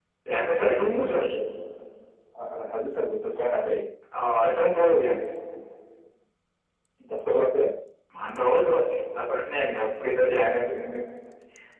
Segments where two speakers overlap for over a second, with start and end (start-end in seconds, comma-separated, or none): none